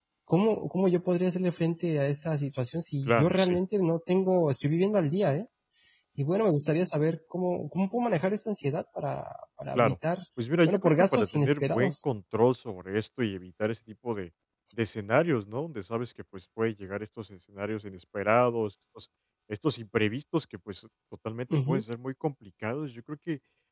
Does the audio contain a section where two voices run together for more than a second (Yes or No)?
Yes